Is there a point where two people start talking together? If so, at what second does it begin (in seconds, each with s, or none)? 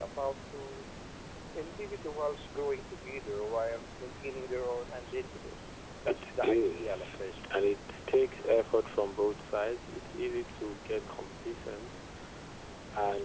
6.1 s